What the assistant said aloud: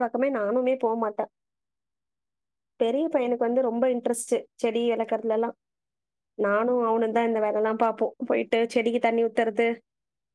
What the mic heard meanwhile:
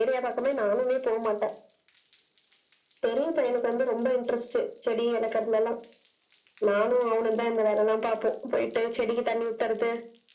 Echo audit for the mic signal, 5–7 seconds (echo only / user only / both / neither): echo only